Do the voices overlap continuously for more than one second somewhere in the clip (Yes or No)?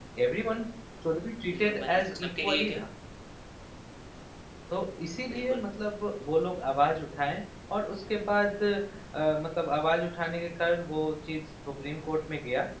Yes